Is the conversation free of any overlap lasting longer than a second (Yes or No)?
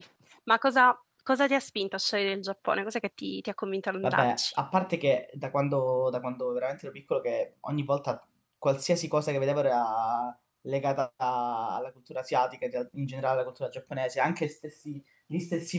Yes